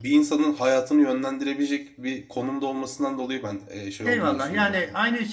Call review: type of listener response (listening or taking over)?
taking over